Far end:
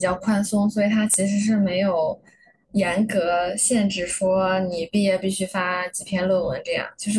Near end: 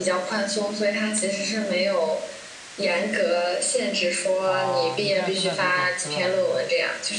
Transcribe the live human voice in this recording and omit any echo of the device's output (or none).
啊，你现在是在读本科还是